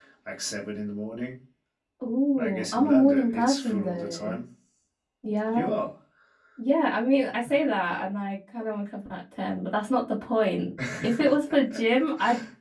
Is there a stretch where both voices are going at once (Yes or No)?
Yes